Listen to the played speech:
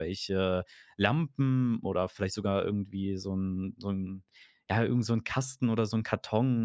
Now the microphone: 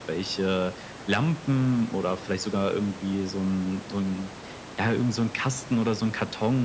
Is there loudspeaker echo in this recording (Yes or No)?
Yes